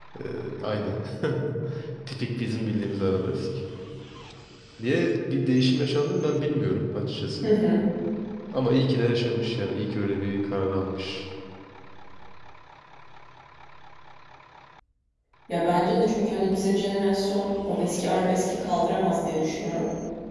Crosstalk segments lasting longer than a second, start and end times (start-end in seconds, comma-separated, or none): none